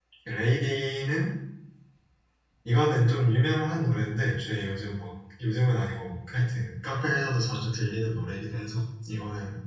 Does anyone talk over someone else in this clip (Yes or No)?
No